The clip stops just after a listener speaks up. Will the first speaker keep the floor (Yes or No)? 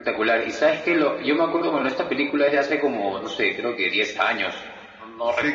No